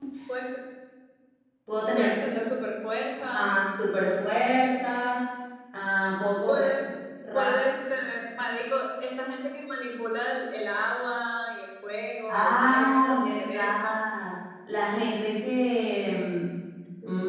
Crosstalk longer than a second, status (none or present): present